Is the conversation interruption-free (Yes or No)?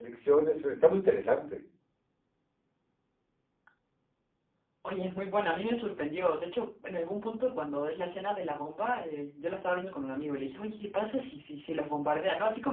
Yes